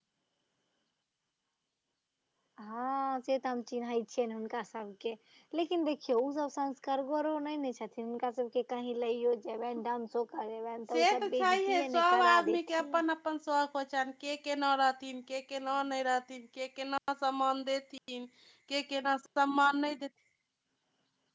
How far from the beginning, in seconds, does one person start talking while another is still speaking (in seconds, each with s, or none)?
10.9 s